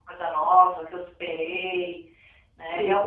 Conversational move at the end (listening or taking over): taking over